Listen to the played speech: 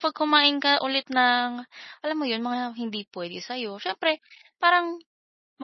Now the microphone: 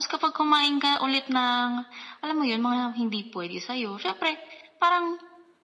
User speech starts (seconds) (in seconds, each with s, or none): none